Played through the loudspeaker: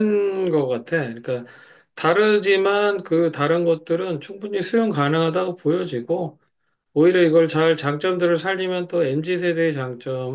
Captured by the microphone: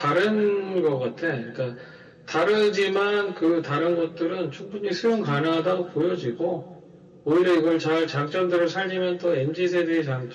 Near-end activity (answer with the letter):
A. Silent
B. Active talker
A